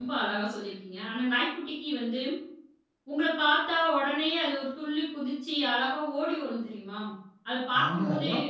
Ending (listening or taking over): taking over